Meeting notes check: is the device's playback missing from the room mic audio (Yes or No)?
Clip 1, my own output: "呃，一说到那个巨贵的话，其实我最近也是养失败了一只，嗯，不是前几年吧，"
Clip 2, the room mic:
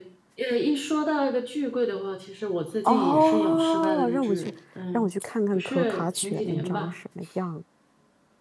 No